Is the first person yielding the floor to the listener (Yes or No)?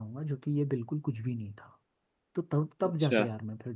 No